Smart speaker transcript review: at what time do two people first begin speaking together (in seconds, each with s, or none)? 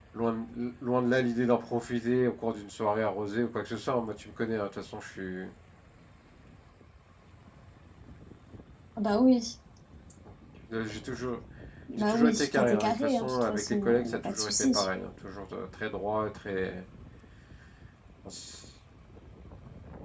12.0 s